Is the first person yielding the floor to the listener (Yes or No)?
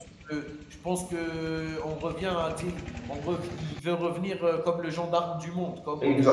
Yes